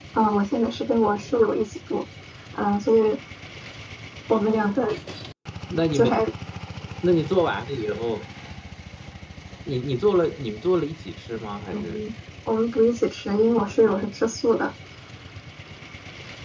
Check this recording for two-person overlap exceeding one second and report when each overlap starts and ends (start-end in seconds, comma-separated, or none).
none